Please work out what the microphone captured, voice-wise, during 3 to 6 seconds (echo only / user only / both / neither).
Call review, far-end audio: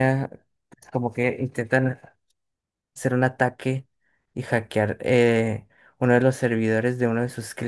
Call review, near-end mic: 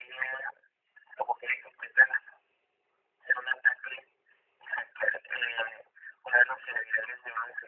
echo only